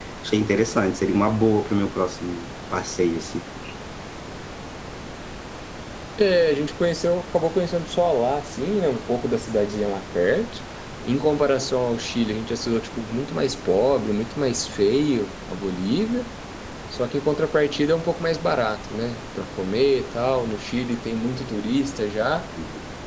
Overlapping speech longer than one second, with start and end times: none

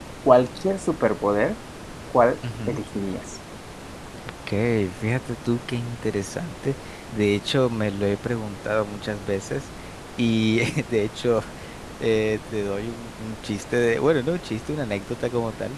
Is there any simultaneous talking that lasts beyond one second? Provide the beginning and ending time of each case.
none

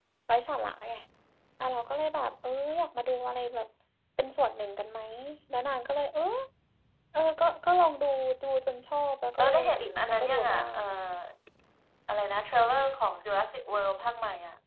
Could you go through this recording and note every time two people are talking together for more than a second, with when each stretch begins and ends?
9.4-10.8

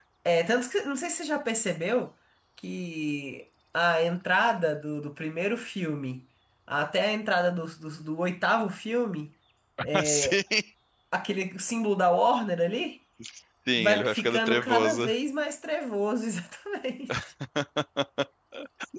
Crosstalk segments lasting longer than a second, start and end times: 13.8-15.1

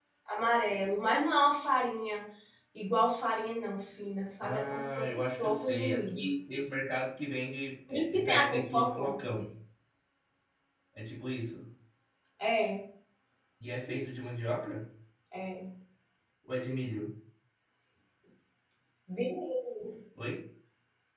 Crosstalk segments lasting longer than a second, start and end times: 4.4-6.3, 7.9-9.2

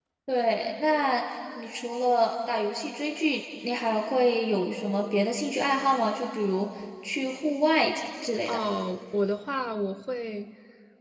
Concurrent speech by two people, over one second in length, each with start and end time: none

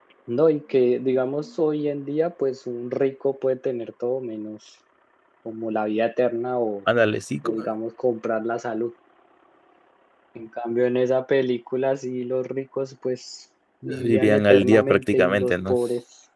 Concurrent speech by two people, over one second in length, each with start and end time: 14.0-15.8

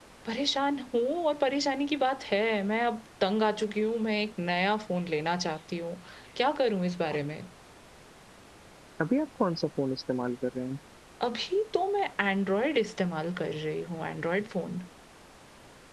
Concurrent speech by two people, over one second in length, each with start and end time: none

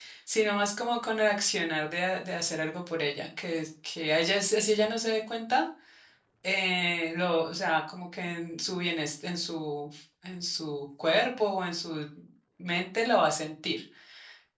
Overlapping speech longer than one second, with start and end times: none

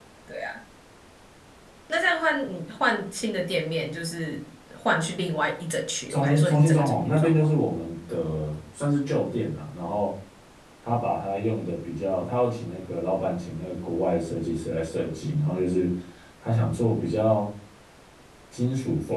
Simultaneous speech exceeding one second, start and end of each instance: 6.1-7.5

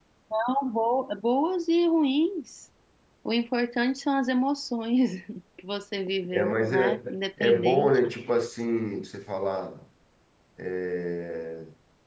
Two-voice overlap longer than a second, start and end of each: 6.3-8.0

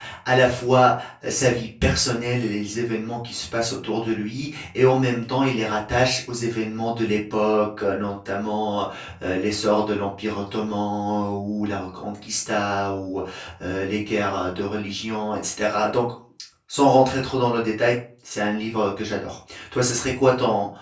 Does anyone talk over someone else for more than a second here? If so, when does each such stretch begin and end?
none

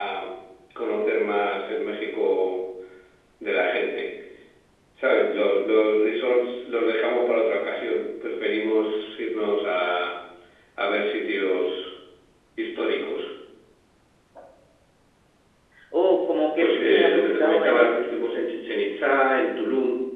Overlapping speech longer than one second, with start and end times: 16.6-17.9

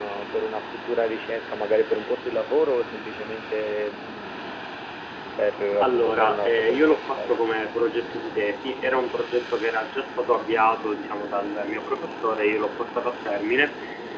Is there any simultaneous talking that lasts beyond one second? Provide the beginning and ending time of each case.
5.8-7.4

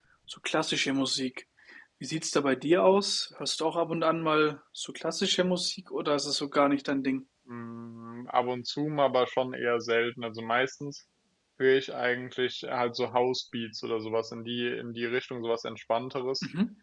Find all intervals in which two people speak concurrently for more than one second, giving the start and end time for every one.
none

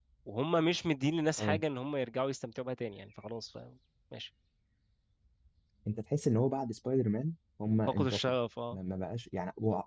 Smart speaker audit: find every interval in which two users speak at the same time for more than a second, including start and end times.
none

